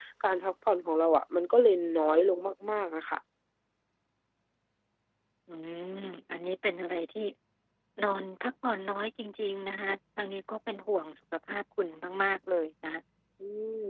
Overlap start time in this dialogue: none

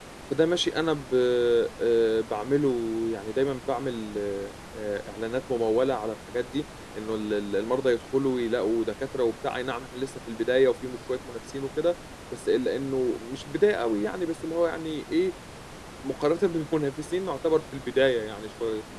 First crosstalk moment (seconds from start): none

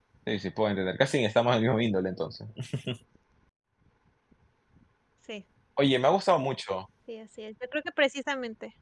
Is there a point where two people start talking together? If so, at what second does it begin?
none

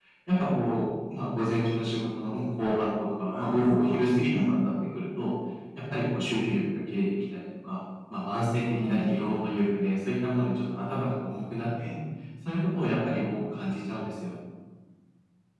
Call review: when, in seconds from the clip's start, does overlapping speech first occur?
3.3 s

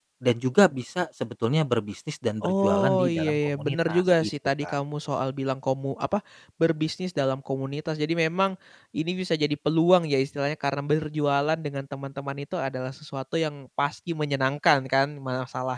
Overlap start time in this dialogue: 2.4 s

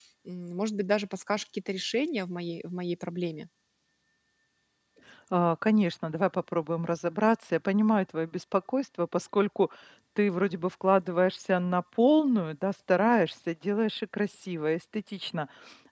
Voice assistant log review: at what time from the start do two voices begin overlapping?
none

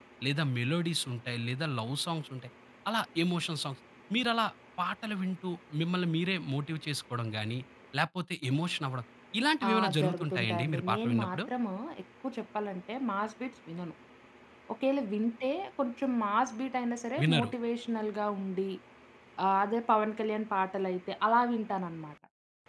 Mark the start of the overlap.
9.7 s

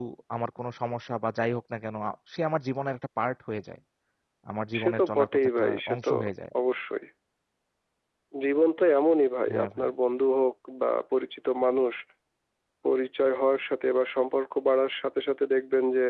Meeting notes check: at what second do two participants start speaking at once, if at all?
4.8 s

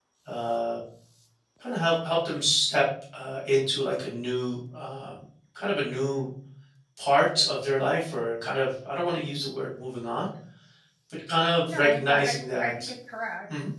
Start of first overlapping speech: 11.6 s

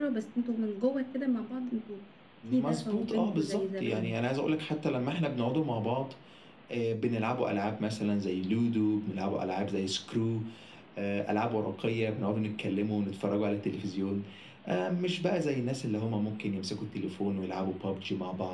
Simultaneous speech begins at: 2.5 s

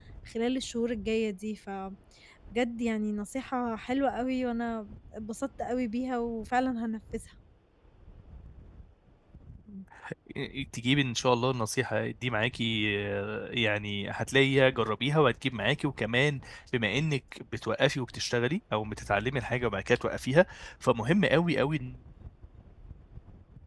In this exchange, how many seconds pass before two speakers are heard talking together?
none

